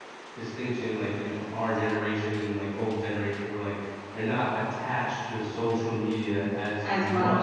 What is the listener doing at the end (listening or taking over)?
listening